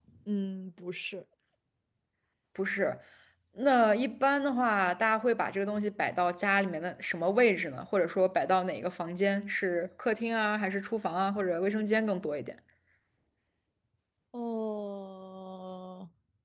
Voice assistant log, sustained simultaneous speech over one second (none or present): none